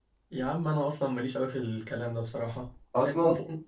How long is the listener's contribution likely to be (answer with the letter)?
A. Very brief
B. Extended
A